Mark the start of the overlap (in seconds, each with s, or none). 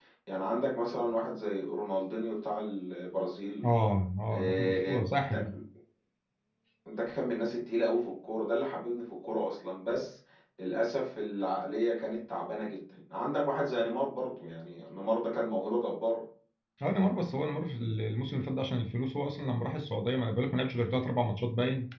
4.3 s